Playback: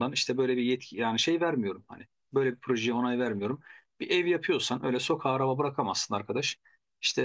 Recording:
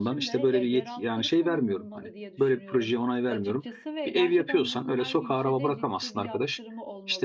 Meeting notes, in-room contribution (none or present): present